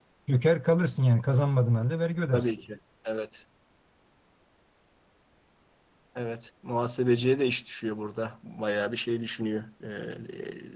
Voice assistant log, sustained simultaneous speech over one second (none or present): none